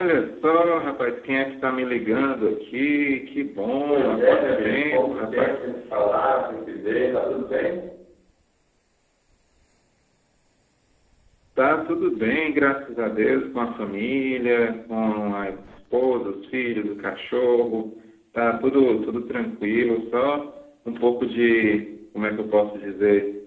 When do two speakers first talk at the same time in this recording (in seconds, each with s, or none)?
3.9 s